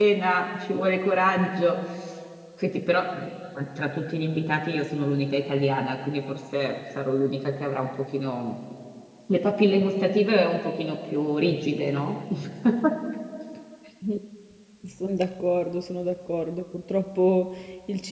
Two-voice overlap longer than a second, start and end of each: none

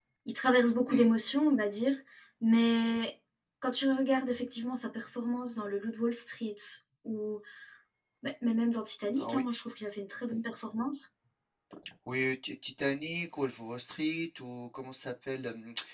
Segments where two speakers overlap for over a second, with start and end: none

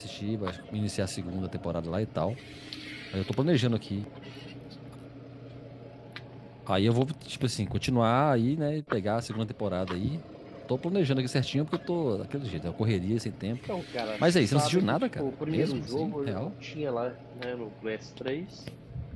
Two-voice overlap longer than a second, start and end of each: 14.2-16.5

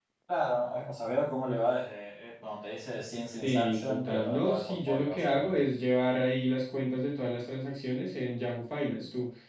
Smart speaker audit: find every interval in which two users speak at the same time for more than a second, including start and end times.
3.4-5.7

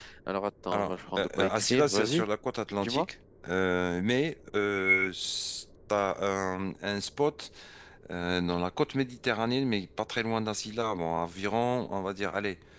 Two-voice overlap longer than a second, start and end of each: 0.7-2.3

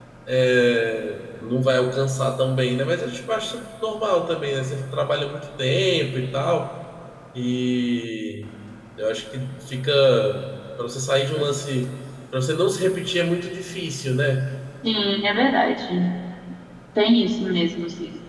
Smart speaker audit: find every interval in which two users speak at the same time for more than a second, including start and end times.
none

